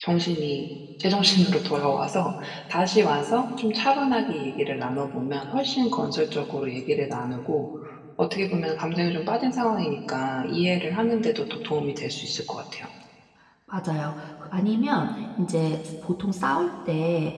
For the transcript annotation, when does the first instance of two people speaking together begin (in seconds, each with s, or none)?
none